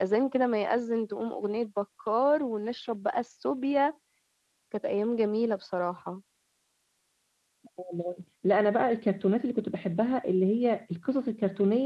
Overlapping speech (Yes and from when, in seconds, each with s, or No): No